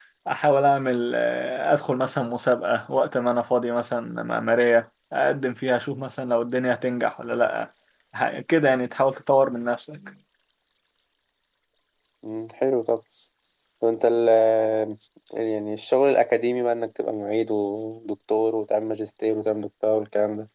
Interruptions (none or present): none